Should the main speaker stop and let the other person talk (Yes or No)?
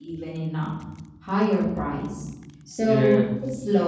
No